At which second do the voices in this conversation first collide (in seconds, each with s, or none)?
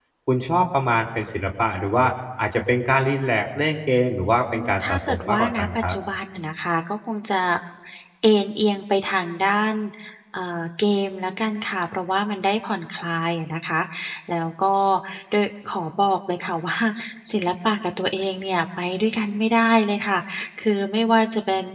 4.5 s